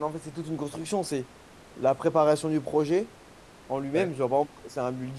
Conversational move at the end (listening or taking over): listening